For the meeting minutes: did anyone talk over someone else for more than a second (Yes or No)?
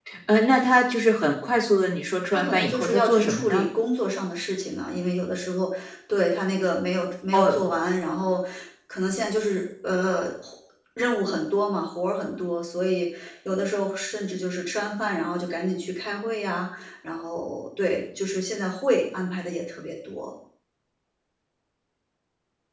Yes